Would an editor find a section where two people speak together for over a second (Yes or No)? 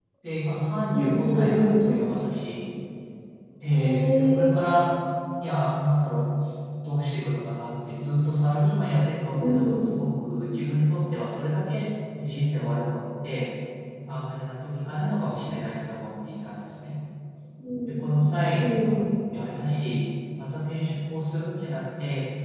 Yes